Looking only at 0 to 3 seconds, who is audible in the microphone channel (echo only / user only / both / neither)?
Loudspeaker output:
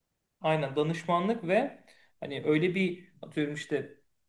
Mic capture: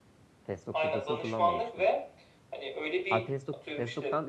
both